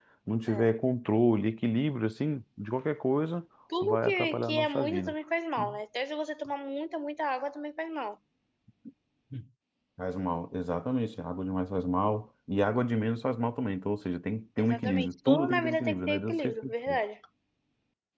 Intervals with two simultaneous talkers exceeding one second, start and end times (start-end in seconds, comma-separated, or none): 3.8-5.1, 14.6-17.0